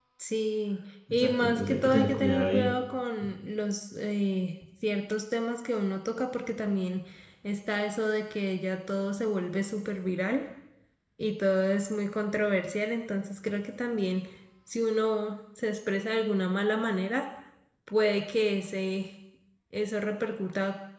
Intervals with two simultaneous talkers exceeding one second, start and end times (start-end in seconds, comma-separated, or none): 1.1-2.7